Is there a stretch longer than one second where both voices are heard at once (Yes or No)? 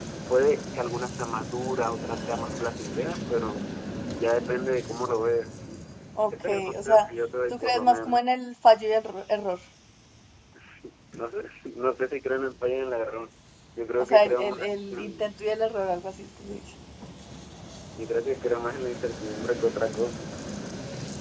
Yes